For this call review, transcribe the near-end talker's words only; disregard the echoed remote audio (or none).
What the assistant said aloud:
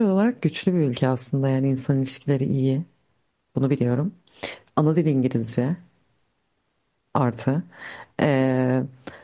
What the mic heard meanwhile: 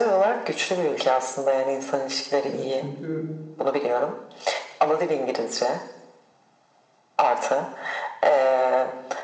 E, Çünkü